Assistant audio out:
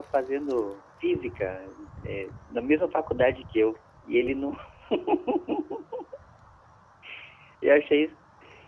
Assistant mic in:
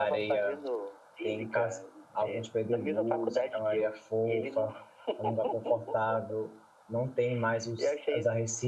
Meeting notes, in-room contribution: present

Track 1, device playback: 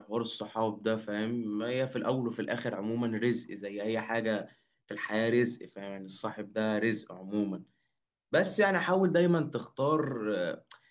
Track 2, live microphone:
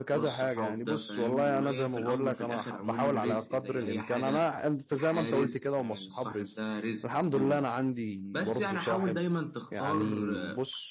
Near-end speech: present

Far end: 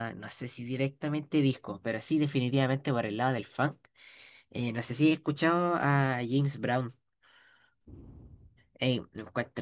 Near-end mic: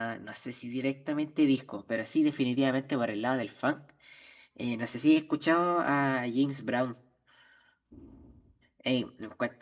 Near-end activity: none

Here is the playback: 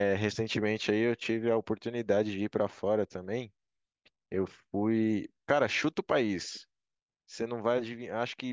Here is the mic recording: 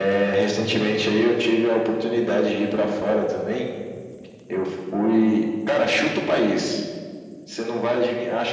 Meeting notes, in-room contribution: none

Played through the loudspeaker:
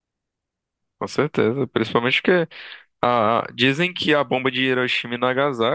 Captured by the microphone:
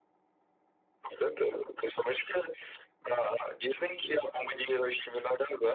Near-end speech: none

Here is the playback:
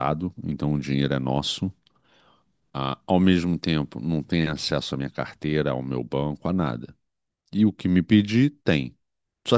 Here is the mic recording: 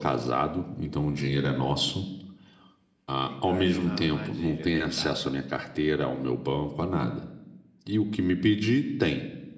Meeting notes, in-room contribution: present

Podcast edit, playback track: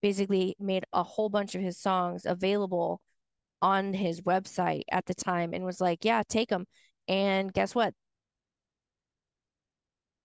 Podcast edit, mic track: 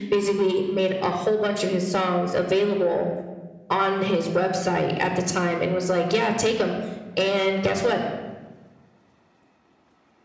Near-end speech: none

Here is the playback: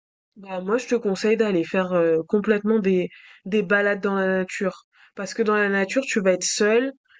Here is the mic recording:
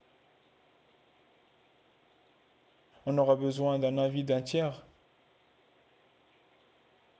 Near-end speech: present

